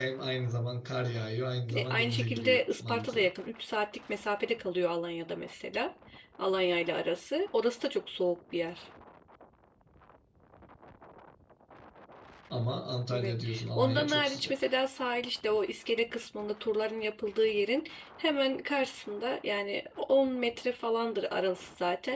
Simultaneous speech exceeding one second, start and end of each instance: 1.7-3.3, 13.1-14.5

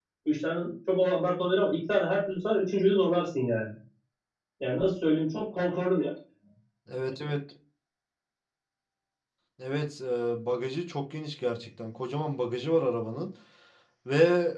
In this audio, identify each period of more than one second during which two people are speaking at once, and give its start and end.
none

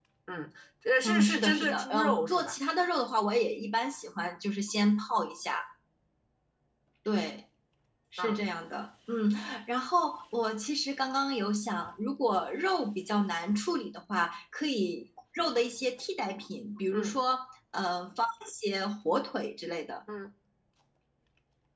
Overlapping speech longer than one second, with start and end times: 1.0-2.6

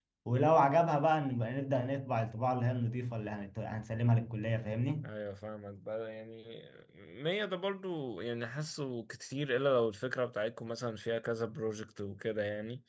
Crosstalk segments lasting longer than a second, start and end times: none

